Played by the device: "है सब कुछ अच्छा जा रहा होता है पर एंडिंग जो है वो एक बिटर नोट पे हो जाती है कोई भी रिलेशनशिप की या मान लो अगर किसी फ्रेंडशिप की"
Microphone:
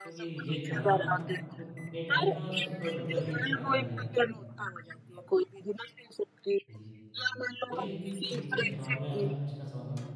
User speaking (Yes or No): Yes